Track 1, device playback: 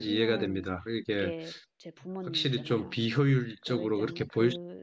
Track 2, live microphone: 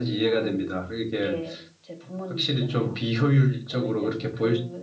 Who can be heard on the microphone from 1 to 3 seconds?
echo only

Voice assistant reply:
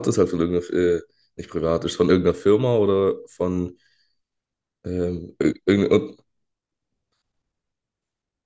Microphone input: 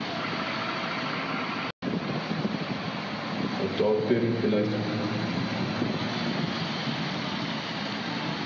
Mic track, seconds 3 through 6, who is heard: user only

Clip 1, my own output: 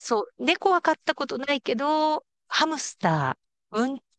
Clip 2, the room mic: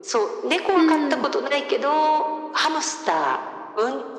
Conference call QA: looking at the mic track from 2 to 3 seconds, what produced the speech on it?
echo only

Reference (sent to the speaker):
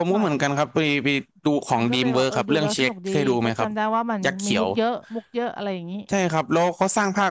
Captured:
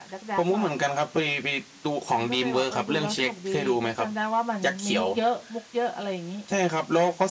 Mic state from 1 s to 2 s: echo only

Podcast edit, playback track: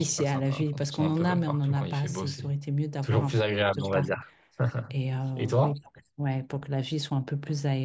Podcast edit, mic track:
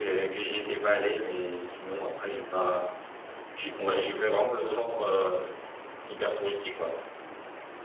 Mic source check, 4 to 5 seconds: user only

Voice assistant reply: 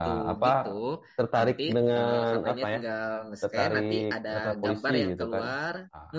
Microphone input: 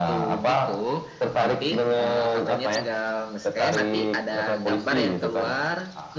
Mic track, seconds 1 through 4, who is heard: echo only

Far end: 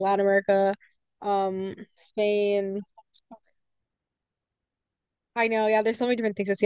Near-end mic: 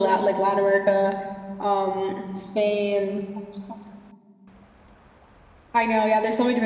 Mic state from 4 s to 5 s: neither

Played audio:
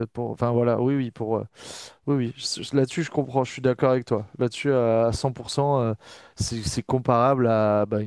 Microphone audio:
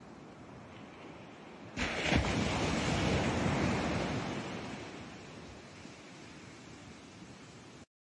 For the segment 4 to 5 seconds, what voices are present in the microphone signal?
neither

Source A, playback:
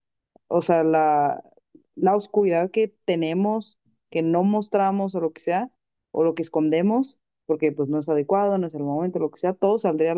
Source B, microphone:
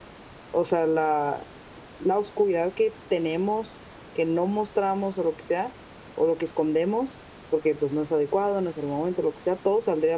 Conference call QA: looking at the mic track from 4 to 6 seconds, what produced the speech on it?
echo only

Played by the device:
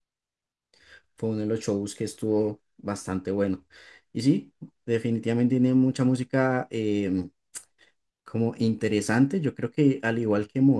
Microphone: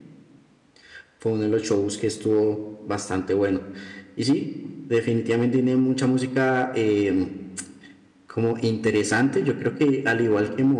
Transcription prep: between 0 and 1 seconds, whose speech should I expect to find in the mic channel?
neither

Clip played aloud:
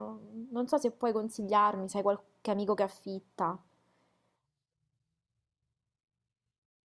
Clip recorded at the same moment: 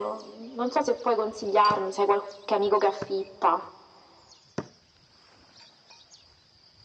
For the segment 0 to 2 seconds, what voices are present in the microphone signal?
echo only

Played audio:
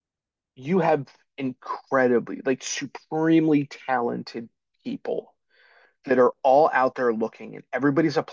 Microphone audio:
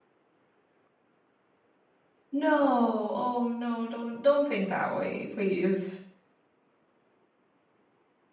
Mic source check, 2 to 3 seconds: user only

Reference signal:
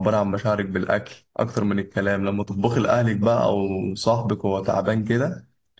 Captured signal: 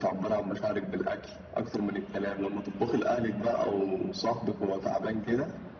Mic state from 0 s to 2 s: echo only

